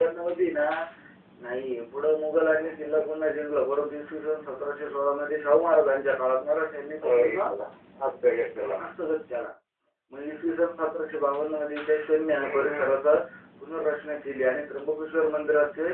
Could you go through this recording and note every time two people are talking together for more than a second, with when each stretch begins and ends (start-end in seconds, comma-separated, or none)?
none